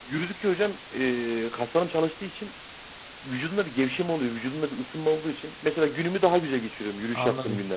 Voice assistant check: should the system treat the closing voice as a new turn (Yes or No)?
Yes